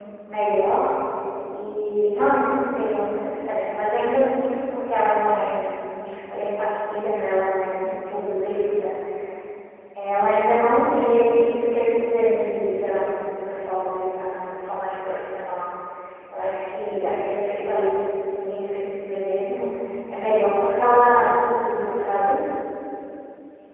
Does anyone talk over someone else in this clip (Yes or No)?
No